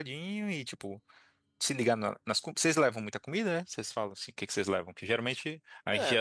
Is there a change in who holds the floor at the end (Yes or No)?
No